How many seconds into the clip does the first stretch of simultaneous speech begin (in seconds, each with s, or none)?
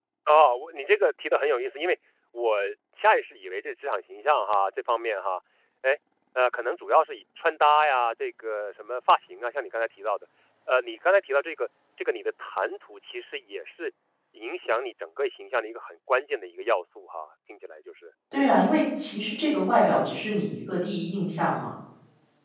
none